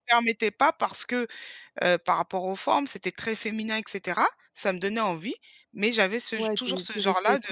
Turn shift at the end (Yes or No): Yes